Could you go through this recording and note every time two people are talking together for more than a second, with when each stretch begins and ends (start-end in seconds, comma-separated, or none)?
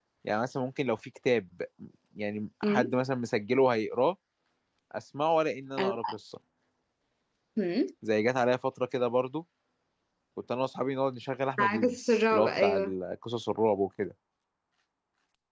11.6-12.9